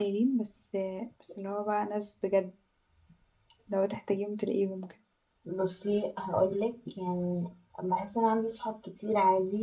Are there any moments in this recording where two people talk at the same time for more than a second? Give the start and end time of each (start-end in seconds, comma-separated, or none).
none